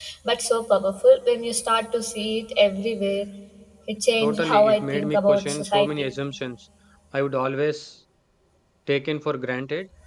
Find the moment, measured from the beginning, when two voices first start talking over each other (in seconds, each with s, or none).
4.2 s